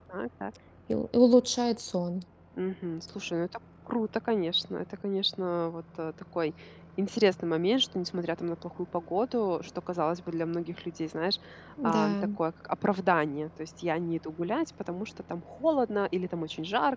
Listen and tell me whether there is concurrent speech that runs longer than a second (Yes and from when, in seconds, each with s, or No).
No